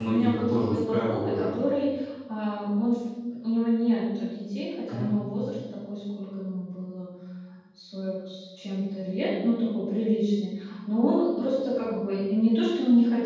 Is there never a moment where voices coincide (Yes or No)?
No